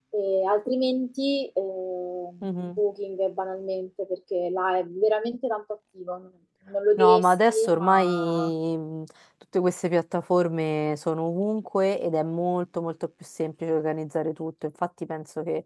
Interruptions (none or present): present